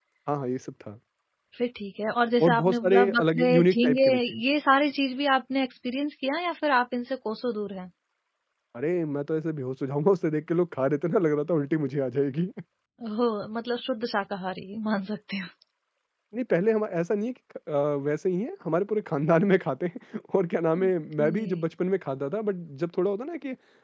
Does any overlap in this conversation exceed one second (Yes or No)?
Yes